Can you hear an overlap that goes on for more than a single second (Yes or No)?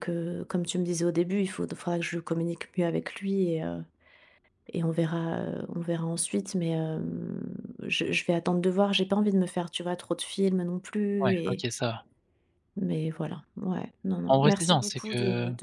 Yes